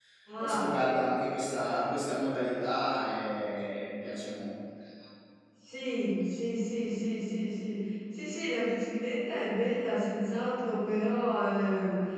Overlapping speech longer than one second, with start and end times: none

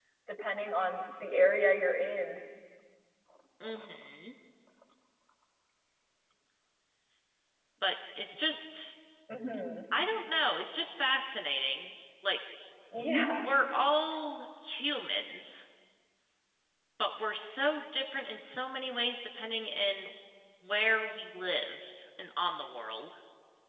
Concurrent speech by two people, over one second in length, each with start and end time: none

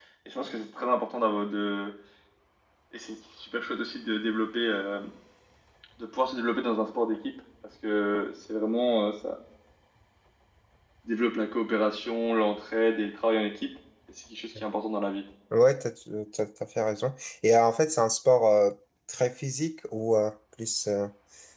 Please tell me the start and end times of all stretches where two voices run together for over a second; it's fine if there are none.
none

